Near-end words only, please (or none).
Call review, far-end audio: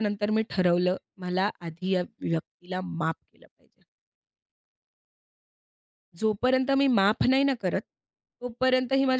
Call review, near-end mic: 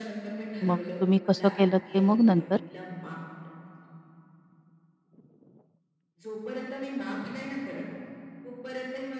मग तुम्ही कसं केलंत ते मग नंतर?